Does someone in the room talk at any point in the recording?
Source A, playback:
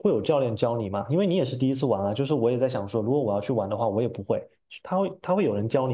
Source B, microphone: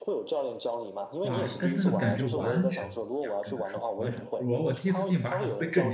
Yes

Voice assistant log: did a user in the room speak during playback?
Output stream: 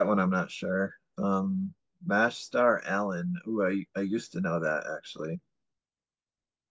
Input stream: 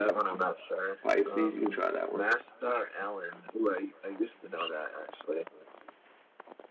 Yes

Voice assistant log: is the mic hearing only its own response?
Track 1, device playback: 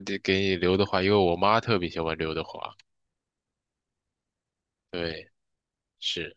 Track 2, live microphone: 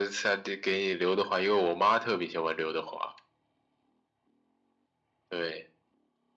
Yes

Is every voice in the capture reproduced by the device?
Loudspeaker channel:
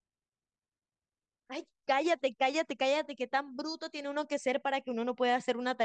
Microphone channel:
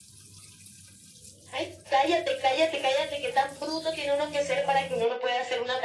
Yes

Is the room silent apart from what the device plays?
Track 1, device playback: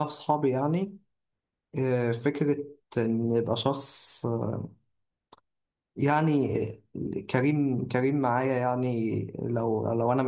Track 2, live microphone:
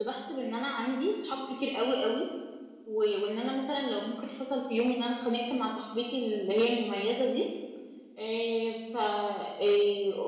No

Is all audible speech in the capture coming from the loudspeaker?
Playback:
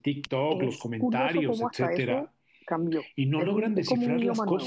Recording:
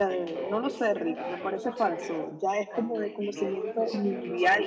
No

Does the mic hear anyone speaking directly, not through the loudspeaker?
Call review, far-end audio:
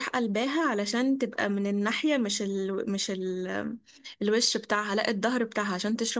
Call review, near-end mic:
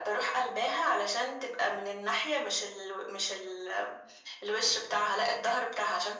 No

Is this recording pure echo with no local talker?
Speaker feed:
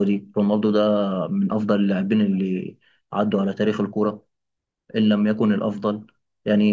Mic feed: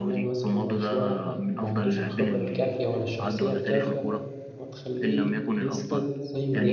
No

